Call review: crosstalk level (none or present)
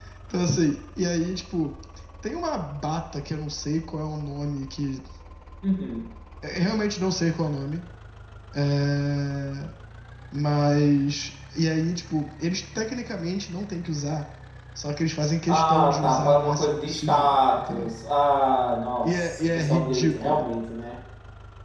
present